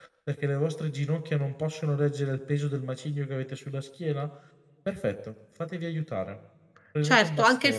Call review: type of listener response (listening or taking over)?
taking over